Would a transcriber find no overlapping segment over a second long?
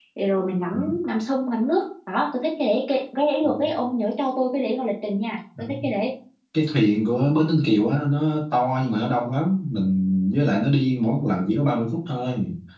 Yes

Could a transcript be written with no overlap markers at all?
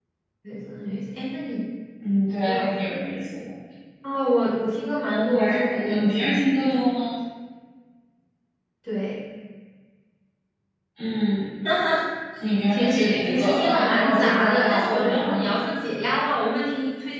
No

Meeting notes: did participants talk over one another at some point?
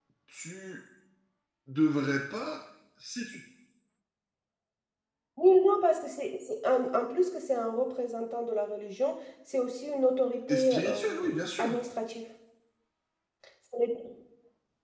Yes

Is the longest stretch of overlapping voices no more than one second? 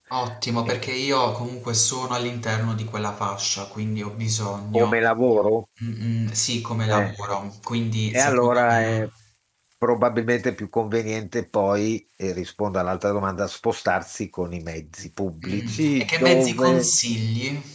No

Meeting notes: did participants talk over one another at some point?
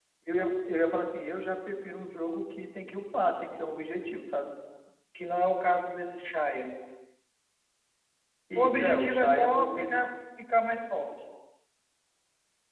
Yes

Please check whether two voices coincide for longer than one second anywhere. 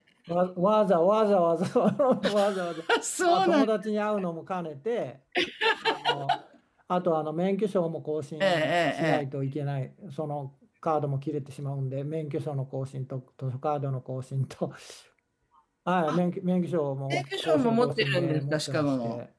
Yes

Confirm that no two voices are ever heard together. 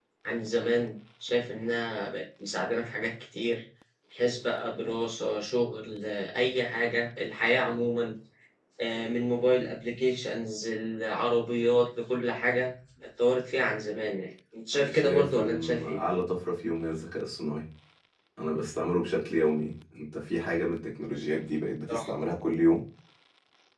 No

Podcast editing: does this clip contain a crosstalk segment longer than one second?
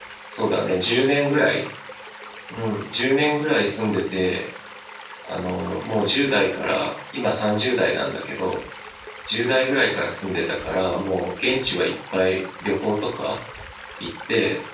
No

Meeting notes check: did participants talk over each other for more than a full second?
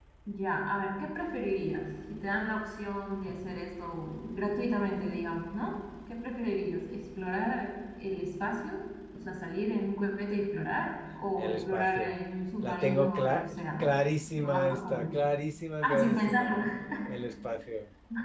Yes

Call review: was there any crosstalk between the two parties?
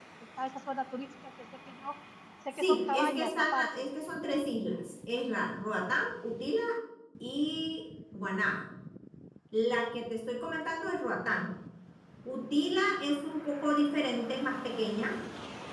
Yes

